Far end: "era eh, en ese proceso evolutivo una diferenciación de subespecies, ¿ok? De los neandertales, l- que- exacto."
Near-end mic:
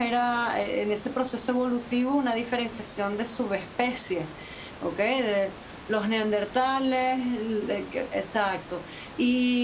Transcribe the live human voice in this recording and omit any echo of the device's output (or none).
none